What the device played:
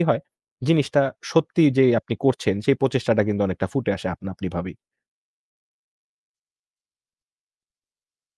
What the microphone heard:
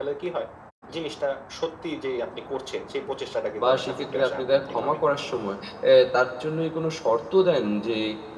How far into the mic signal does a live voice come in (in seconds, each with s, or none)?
3.6 s